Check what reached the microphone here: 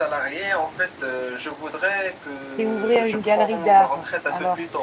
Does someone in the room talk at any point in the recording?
Yes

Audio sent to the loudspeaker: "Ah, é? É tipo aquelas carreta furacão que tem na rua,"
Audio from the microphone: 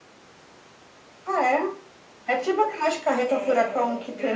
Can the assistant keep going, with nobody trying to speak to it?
No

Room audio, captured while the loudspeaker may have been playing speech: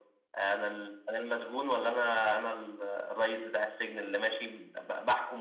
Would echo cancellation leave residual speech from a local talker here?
No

